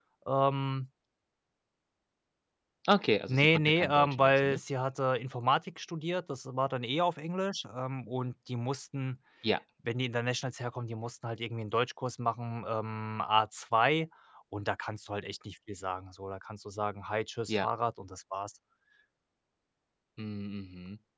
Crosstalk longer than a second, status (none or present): present